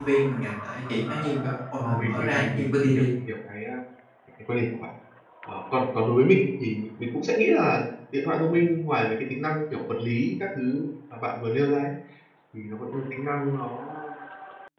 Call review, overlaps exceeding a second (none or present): present